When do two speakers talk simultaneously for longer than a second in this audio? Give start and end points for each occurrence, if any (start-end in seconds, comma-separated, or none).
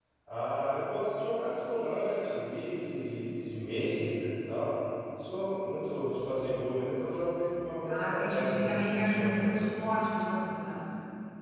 7.8-9.7